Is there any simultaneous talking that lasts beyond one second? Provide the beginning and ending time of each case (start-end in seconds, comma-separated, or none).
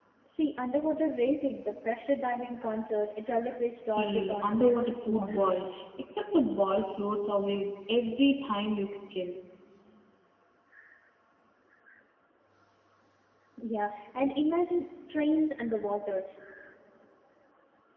4.0-5.6